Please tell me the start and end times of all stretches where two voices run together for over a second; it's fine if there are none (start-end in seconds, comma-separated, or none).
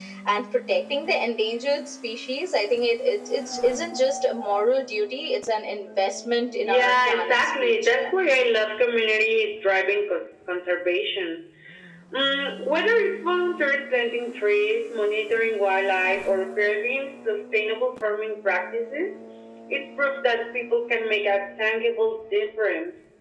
6.7-8.1